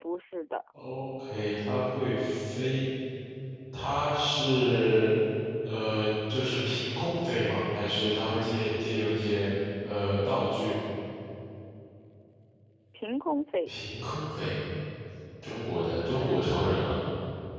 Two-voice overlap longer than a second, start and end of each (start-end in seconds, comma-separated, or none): none